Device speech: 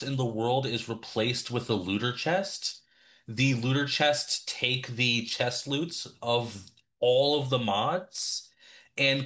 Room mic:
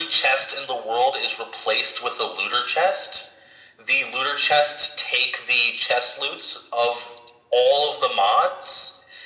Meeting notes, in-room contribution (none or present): none